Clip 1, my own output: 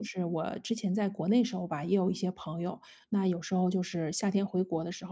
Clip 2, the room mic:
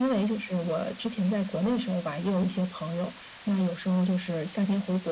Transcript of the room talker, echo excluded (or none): none